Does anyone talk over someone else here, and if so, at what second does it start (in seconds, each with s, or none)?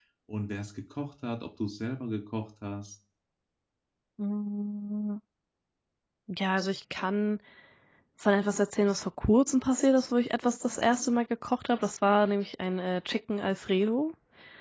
none